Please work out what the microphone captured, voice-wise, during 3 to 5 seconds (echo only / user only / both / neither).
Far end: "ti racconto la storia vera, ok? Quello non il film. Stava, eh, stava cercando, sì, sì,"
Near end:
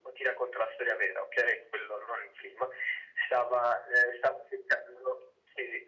echo only